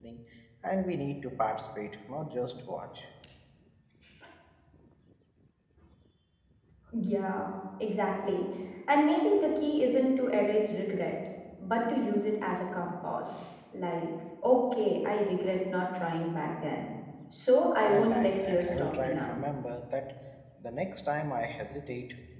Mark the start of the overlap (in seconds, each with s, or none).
17.8 s